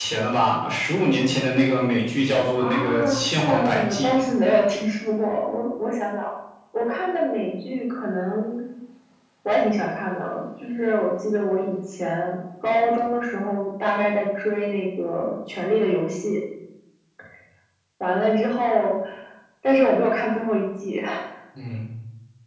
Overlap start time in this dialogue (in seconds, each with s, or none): 2.6 s